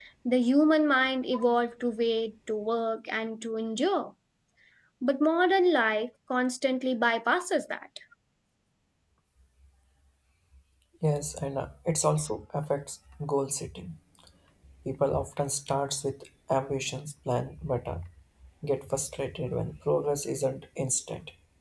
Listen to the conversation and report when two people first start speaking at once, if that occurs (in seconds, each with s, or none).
none